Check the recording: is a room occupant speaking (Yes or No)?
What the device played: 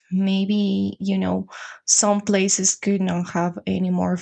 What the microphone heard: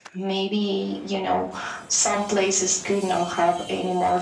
No